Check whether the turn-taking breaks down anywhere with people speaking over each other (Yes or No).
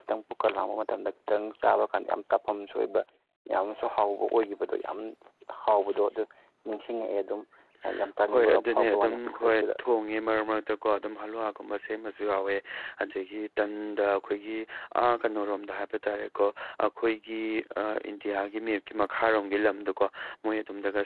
Yes